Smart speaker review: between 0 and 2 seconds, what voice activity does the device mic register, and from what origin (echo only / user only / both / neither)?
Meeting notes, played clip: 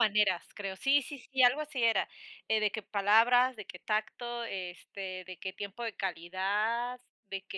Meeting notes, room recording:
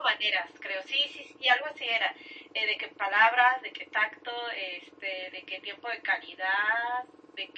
echo only